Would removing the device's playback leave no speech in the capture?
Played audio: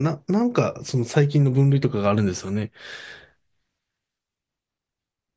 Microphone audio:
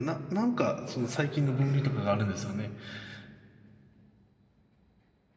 No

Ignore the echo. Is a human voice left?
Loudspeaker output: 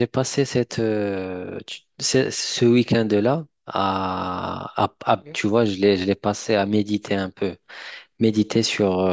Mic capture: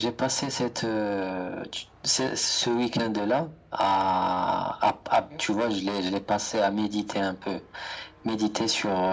No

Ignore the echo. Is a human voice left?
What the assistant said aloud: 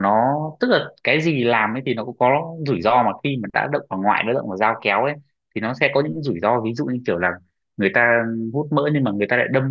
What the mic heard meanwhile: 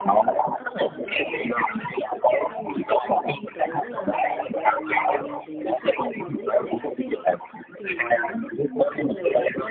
Yes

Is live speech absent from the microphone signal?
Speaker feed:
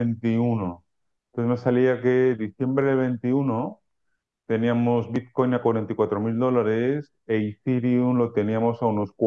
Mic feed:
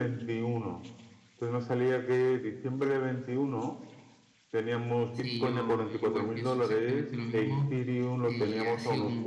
No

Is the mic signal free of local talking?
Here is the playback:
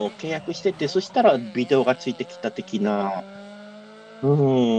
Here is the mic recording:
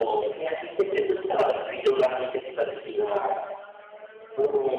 Yes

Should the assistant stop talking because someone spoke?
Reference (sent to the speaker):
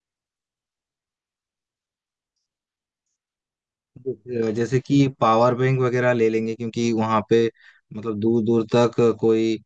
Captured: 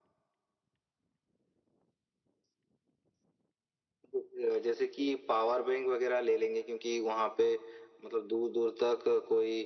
No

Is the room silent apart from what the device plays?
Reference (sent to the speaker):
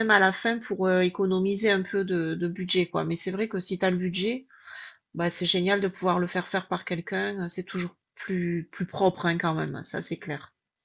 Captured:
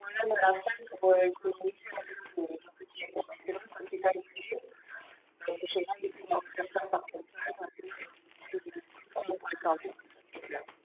Yes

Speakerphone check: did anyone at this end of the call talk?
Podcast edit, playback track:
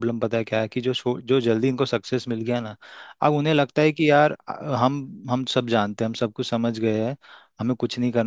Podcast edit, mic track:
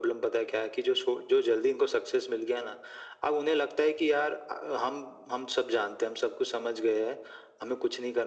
No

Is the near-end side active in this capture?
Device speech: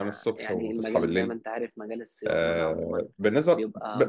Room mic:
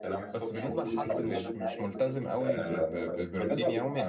Yes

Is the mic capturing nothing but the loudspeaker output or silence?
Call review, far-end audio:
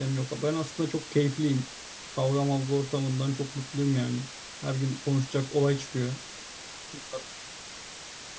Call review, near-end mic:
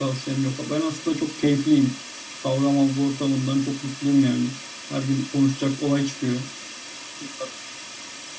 Yes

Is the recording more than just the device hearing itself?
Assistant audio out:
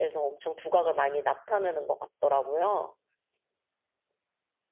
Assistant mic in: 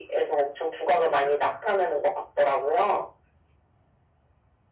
No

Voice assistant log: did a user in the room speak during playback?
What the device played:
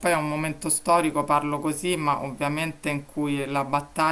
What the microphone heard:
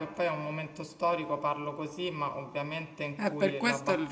Yes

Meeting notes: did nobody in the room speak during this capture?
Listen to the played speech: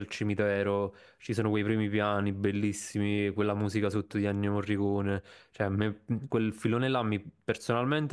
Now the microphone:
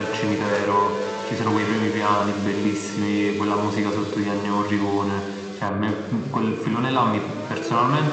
Yes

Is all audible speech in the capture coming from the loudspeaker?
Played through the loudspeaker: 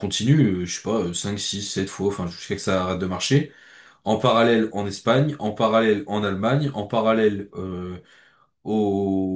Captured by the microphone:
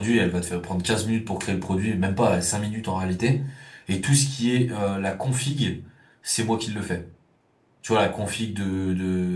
No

